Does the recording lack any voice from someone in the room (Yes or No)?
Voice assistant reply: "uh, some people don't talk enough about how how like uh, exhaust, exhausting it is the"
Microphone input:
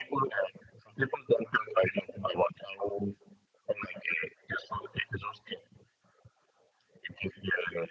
Yes